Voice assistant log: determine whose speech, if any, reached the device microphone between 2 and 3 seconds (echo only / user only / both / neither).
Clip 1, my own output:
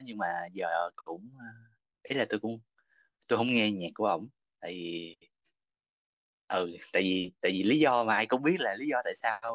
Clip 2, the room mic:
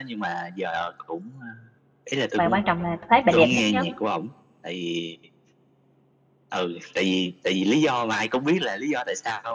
both